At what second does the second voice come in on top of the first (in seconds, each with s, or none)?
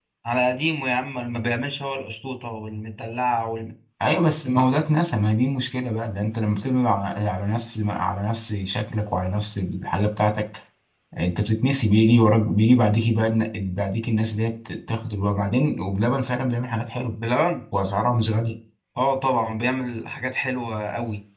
none